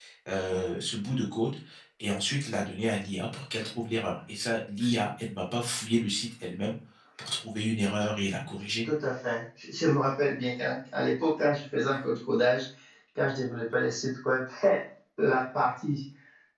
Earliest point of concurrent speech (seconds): none

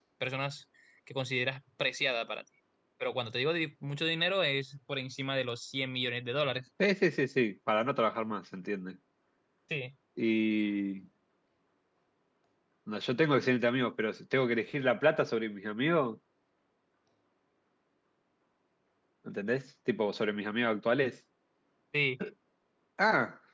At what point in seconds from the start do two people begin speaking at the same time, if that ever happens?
none

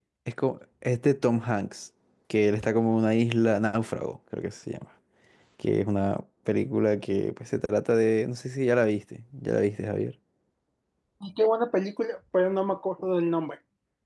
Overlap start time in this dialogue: none

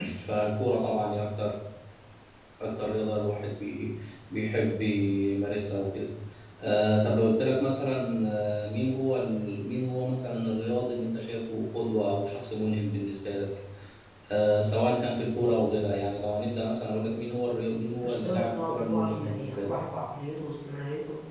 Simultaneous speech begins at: 18 s

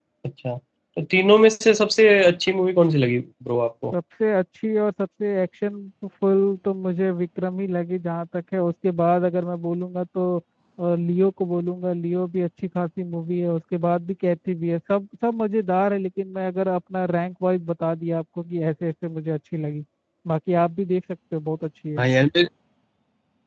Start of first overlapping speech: none

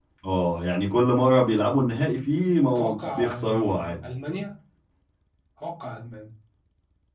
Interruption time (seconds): 3 s

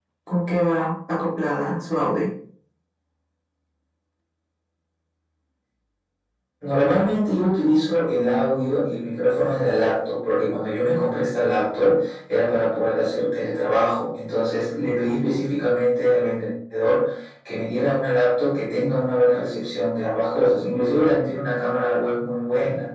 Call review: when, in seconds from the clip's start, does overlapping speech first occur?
none

